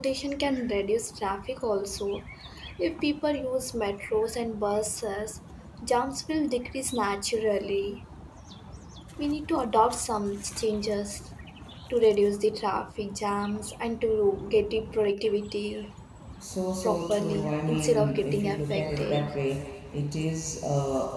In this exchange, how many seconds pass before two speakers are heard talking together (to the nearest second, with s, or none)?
17 s